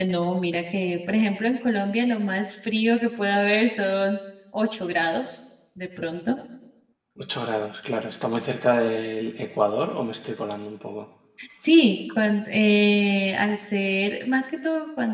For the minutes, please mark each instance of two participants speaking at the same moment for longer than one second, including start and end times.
none

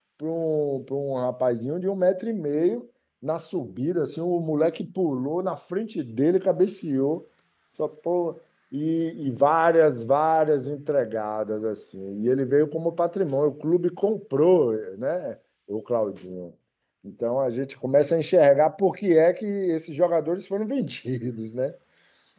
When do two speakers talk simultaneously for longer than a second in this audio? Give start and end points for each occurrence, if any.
none

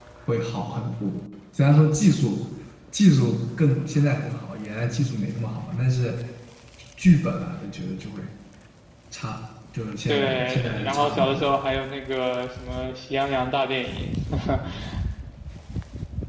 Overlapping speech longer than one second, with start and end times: 10.1-11.4

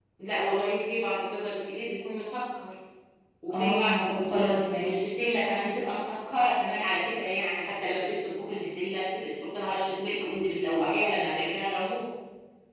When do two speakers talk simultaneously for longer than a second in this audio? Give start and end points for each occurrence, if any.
3.5-5.1

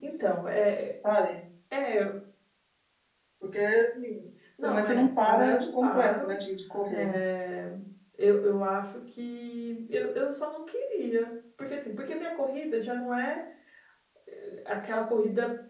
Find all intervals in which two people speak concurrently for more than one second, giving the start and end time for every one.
4.6-6.4

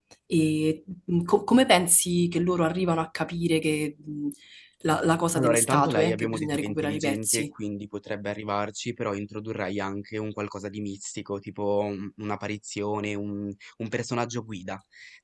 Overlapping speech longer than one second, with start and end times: 5.4-7.5

